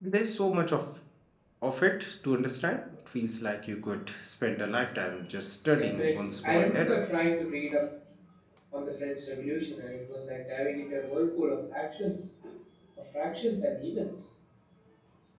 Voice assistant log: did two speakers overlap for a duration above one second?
Yes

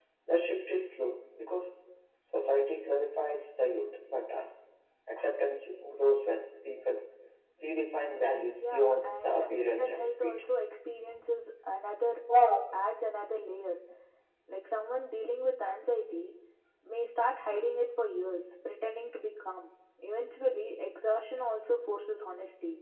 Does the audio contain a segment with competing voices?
Yes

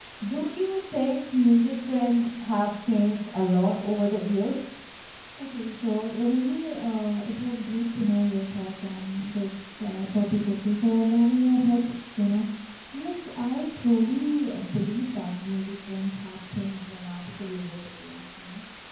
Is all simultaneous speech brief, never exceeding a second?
Yes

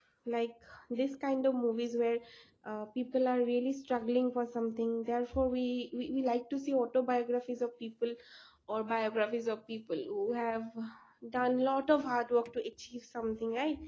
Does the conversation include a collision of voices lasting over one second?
No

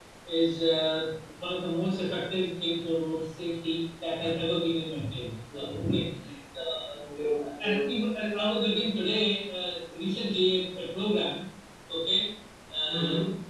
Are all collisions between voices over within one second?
Yes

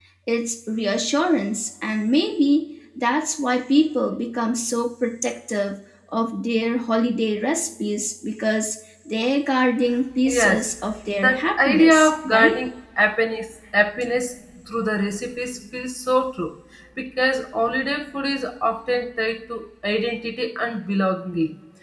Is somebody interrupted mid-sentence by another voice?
Yes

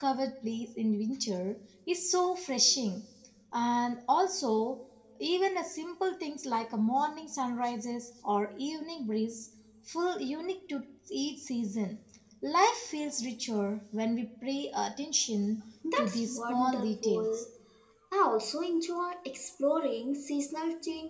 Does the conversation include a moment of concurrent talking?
Yes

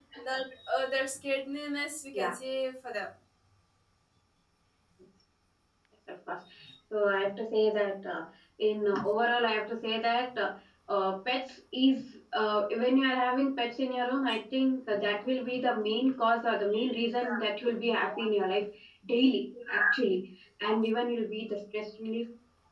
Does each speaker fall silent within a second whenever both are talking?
Yes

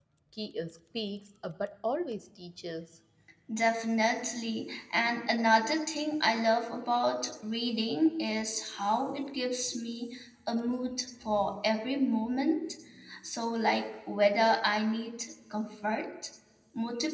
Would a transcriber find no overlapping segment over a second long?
Yes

